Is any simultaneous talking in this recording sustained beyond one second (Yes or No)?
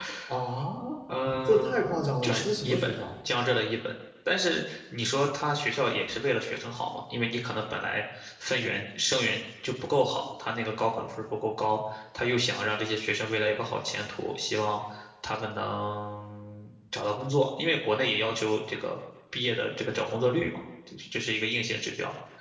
Yes